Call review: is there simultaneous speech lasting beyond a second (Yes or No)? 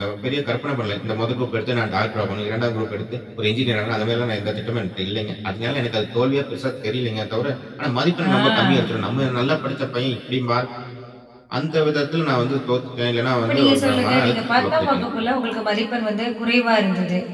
Yes